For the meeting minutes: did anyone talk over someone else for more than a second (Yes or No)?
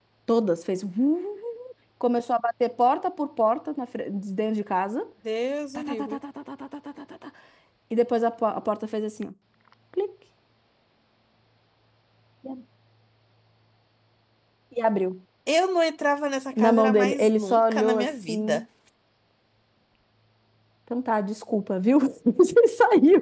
Yes